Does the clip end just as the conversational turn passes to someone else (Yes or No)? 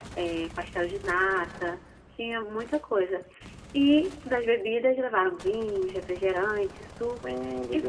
No